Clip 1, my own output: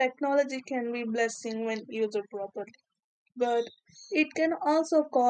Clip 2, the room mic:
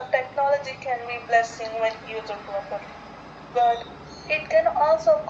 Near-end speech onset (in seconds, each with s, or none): none